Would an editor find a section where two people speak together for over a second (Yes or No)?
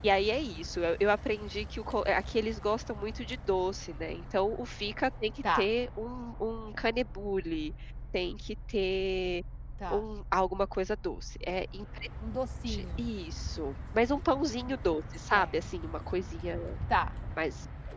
No